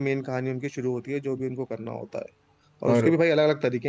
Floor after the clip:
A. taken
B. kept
B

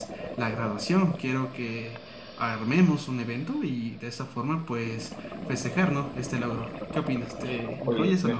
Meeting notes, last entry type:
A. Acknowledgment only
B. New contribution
B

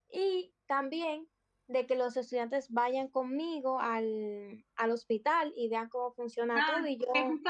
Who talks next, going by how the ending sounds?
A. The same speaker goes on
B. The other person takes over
B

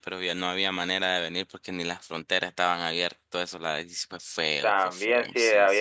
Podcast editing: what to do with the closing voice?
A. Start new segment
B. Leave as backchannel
A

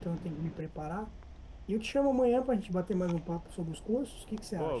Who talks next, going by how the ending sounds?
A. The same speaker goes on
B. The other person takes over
B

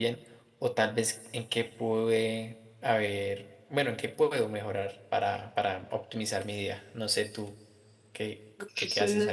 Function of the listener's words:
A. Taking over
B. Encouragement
A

